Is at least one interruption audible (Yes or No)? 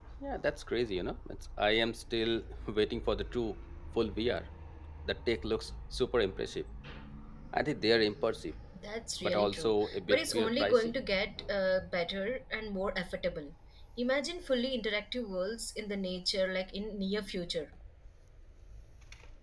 Yes